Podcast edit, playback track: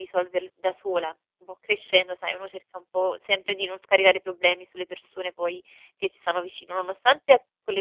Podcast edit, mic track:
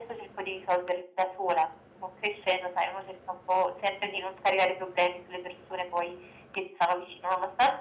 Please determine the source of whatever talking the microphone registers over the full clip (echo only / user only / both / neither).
echo only